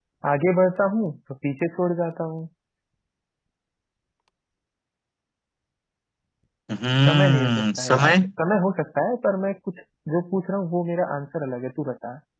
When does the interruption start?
7.1 s

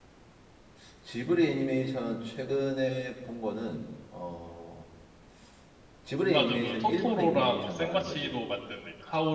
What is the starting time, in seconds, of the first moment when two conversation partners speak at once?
6.3 s

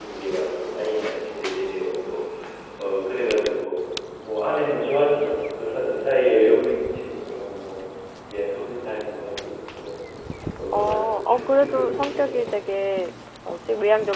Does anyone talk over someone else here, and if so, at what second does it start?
10.7 s

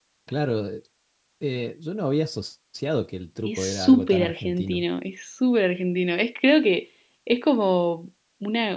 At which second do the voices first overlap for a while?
3.5 s

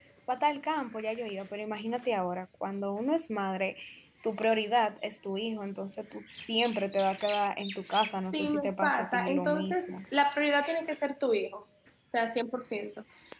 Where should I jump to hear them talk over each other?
8.3 s

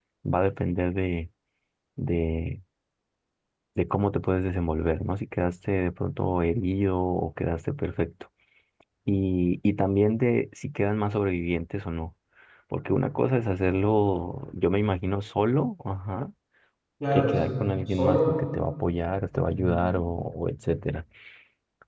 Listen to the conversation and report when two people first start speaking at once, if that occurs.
17.1 s

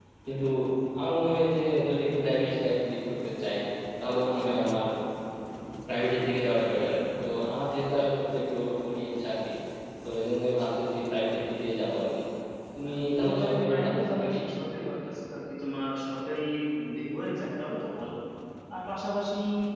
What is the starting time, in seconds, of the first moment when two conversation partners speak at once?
12.8 s

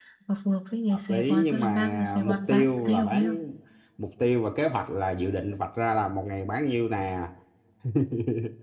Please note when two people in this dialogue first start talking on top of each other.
0.9 s

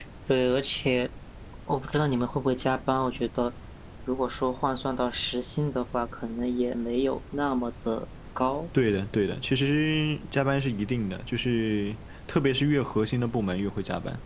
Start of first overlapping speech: none

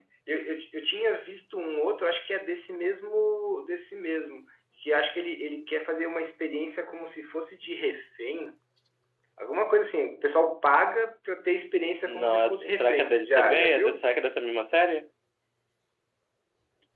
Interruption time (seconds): 12.1 s

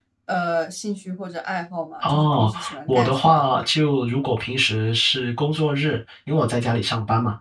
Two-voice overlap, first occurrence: 2.0 s

